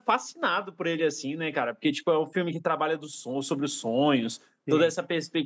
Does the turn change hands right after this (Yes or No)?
No